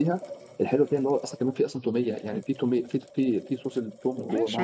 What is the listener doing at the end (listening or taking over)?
taking over